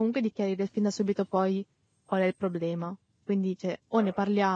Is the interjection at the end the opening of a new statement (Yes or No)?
No